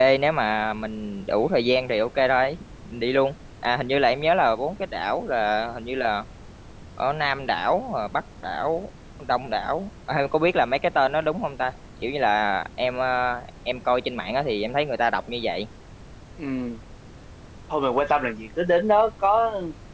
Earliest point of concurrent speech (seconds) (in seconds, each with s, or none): none